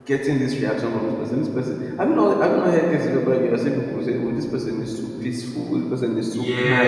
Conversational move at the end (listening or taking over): taking over